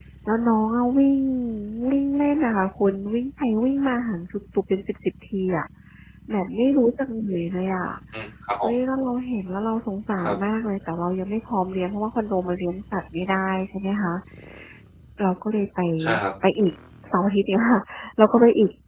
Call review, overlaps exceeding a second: none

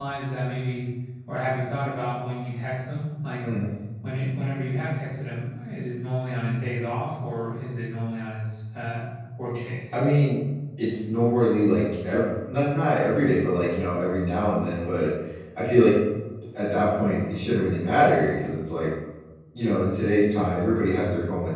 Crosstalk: none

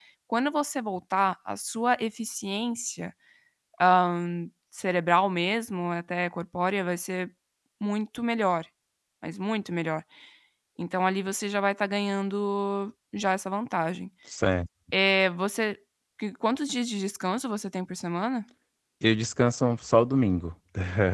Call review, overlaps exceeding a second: none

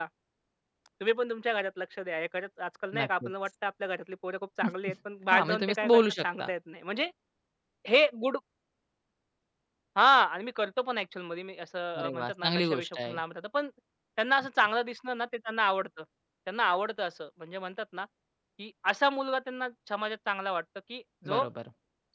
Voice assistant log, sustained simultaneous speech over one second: present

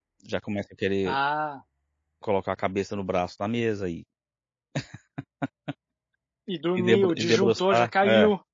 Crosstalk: present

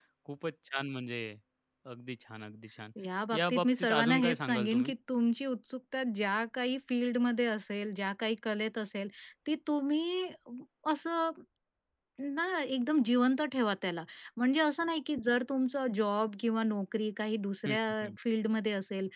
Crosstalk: present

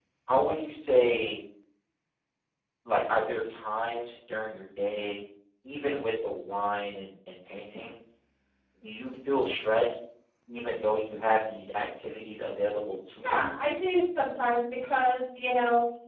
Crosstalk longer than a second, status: none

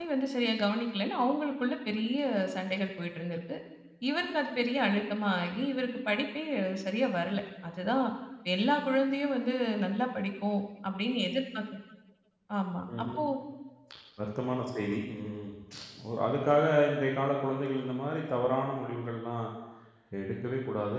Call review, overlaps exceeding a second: none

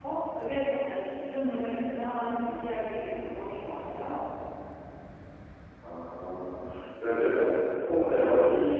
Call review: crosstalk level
none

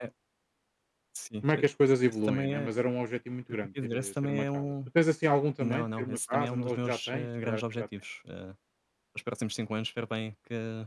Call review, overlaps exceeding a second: present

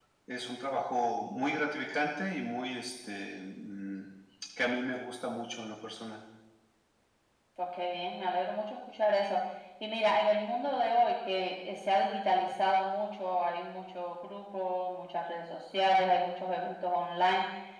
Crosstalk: none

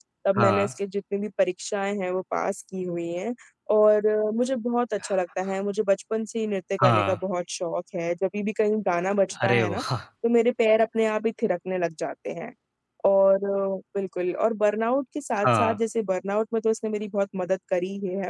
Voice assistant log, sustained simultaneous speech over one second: none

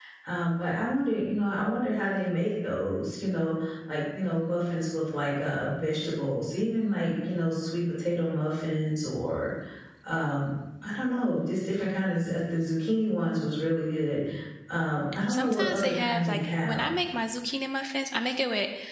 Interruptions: present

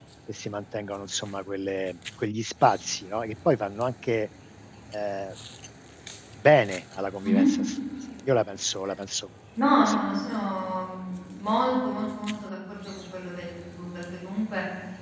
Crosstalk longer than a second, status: none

